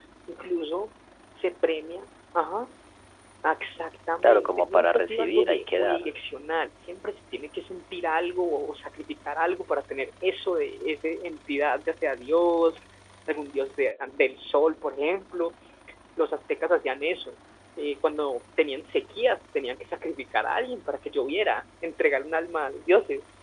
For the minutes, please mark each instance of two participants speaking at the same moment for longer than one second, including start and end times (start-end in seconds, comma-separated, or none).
4.2-6.1